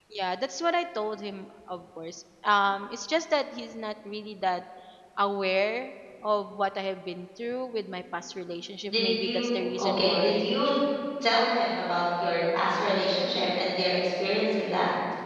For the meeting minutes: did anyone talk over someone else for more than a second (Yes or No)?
Yes